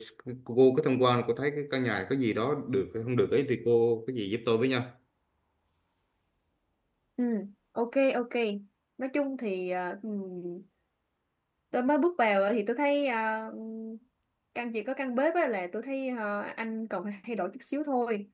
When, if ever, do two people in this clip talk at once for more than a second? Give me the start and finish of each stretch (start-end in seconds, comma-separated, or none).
none